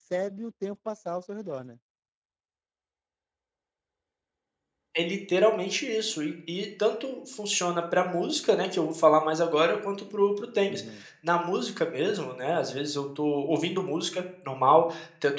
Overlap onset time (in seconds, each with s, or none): none